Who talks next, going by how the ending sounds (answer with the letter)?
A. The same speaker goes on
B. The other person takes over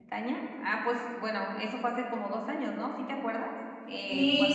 B